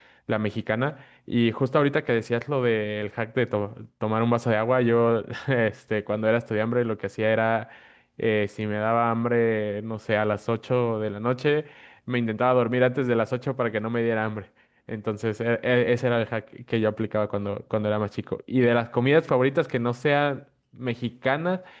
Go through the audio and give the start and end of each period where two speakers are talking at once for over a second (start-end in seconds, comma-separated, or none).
none